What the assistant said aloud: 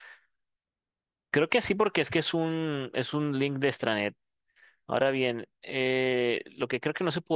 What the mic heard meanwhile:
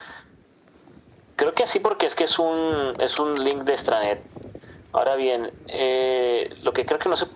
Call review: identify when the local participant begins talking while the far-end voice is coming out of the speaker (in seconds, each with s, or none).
none